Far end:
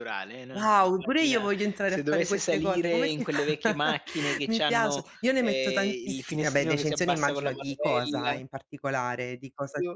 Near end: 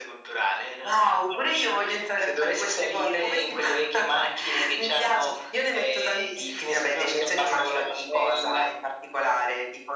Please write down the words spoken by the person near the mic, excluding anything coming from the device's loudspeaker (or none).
none